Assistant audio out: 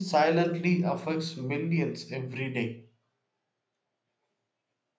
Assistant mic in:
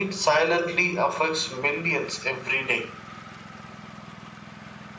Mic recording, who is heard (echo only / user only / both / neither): echo only